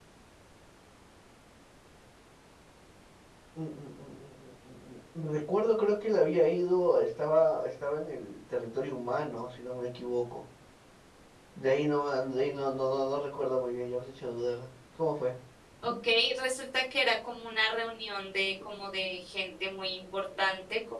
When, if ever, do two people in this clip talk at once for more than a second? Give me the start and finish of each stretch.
none

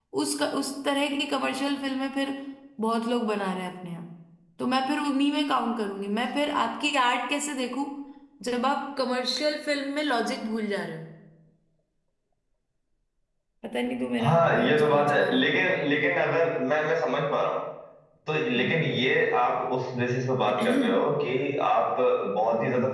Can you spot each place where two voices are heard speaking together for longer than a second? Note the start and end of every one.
14.2-15.8

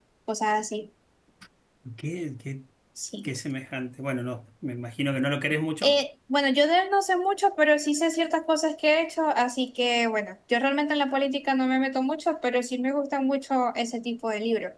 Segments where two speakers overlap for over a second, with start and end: none

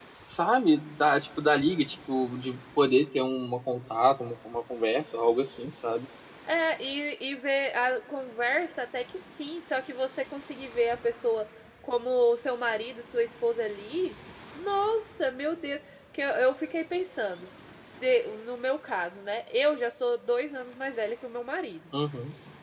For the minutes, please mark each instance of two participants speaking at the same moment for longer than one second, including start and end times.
none

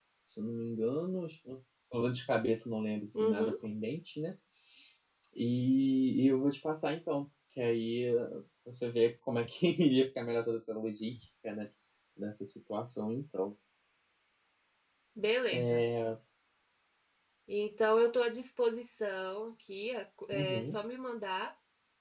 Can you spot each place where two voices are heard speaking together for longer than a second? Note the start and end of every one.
none

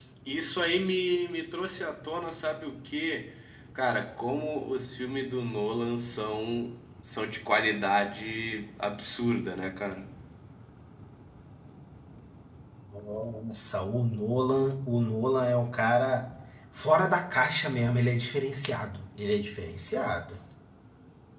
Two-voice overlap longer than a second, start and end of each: none

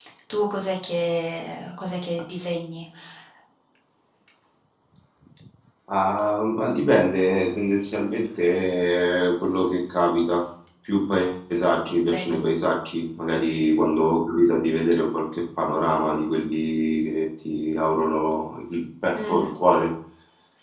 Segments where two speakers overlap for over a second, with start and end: none

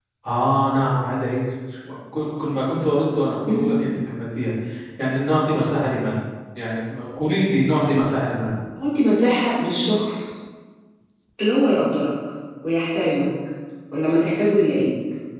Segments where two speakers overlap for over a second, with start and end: none

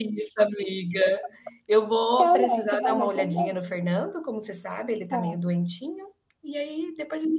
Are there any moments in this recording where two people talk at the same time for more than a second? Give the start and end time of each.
2.2-3.6

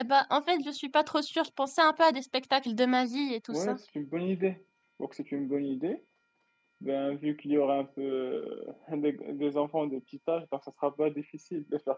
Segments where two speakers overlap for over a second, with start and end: none

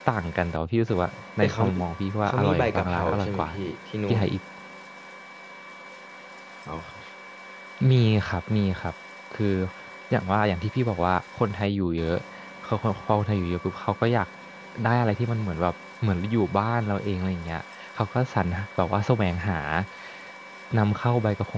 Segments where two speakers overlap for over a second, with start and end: 2.2-3.5

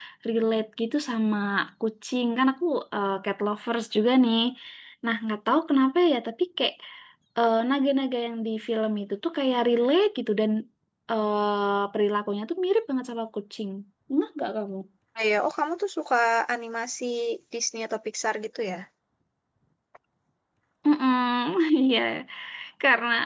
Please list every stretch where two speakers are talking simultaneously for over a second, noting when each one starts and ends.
none

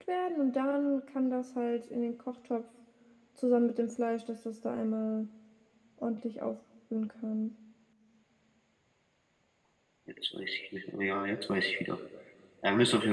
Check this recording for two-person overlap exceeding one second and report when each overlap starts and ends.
none

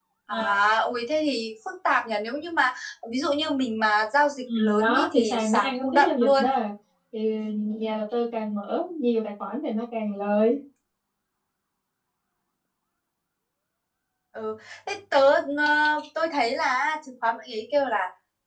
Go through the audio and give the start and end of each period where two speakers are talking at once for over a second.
4.6-6.5

